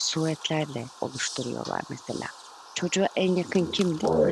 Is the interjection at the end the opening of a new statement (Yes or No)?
No